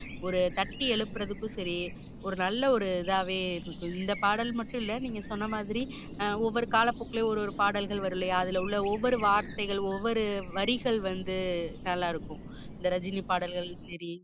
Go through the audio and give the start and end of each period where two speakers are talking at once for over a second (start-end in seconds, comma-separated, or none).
none